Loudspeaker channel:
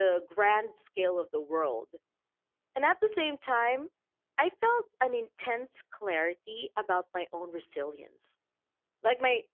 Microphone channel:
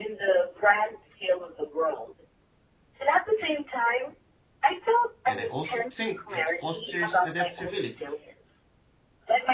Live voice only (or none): And I also think it fosters adaptability.